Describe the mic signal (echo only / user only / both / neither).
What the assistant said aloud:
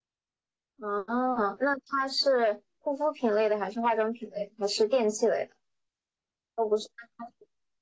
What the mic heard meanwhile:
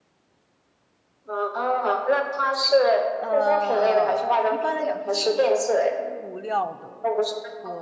both